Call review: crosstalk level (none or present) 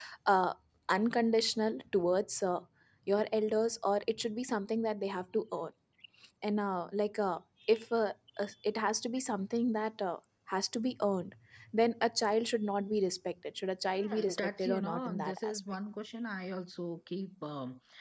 present